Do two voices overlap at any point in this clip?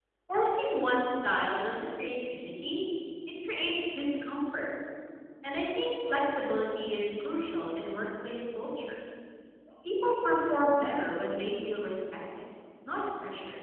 No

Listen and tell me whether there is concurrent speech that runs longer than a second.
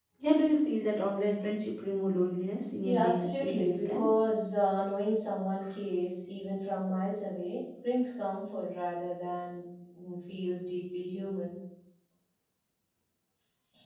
Yes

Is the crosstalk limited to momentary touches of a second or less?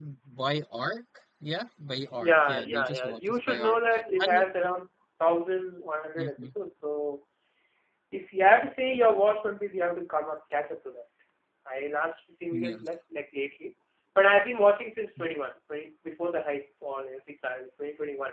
No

